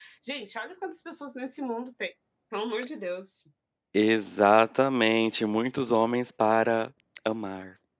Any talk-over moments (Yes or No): No